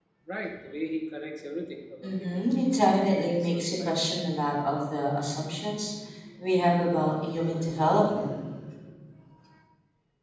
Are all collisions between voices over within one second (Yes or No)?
No